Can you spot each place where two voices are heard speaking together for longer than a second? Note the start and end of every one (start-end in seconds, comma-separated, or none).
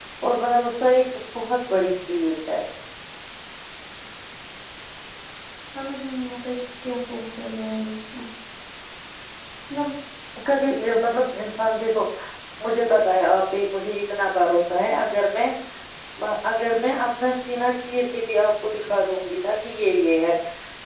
none